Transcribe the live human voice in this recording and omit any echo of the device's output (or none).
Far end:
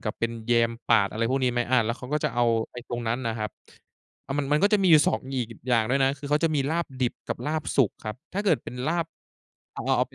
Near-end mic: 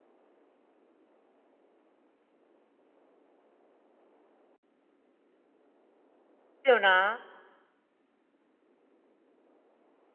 เดี๋ยวนะ